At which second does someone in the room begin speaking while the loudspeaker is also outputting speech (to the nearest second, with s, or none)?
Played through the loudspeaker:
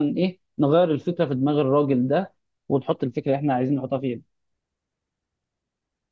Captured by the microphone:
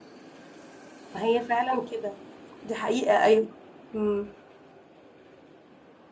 1 s